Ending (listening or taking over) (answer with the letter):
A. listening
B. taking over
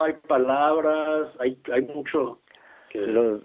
B